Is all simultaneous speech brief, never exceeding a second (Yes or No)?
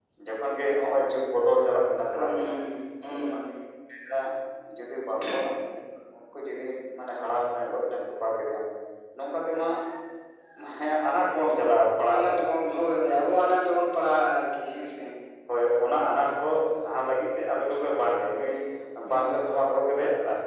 Yes